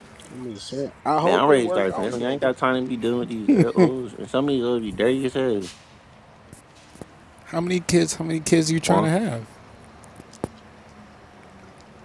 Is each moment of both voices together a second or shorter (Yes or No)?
No